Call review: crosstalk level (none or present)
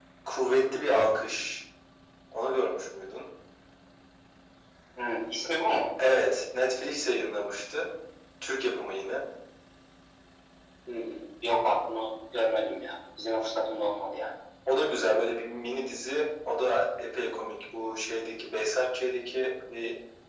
none